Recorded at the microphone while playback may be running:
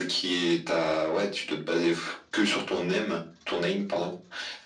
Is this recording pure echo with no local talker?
Yes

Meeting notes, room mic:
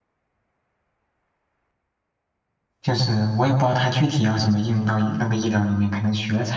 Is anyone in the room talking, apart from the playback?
Yes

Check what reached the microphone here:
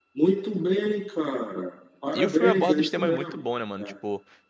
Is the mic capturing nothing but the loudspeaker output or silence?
No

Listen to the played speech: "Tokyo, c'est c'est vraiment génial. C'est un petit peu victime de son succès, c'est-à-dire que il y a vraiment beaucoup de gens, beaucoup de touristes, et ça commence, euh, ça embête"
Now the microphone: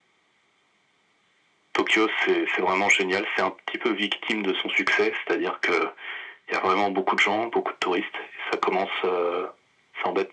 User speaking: No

